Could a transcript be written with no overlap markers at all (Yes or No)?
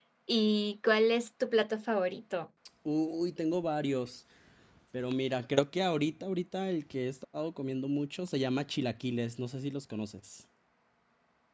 Yes